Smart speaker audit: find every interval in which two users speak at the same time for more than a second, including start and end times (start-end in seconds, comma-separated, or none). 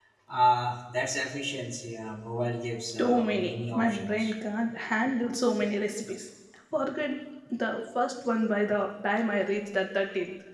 3.0-4.3